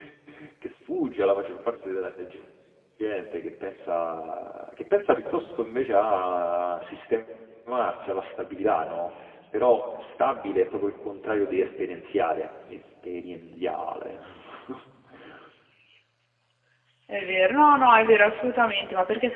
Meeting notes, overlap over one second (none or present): none